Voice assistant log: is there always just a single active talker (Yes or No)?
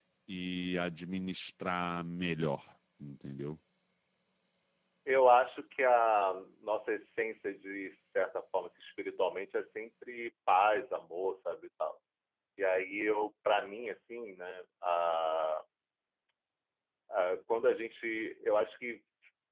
Yes